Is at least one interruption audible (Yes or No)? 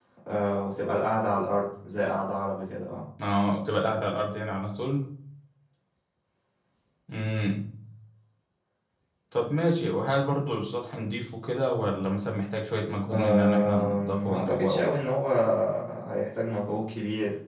Yes